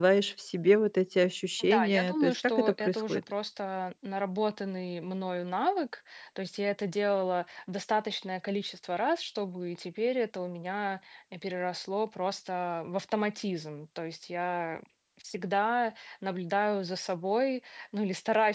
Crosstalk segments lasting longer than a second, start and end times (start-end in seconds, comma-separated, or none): 1.6-3.2